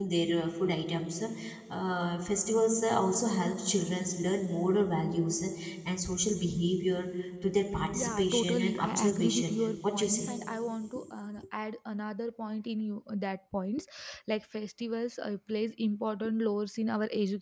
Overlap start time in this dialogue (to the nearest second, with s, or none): 8 s